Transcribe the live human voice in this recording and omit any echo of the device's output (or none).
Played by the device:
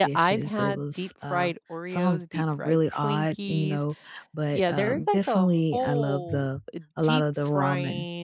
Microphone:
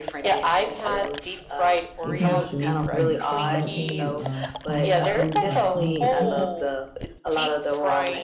They kinda show you some oddly, uh, carnival food called Carnival Eats?